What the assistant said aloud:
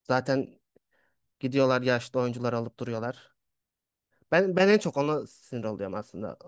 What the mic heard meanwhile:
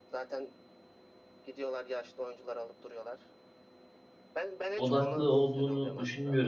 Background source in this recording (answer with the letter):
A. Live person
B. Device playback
B